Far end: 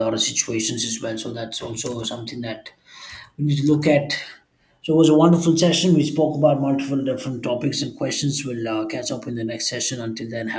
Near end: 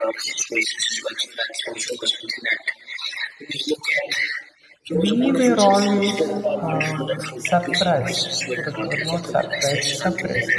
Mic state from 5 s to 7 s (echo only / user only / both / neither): both